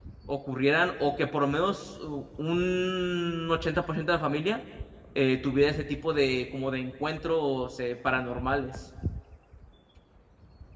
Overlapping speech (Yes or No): No